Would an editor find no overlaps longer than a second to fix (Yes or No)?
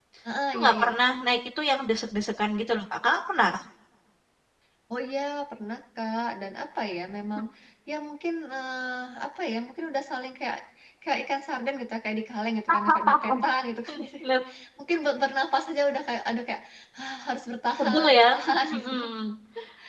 No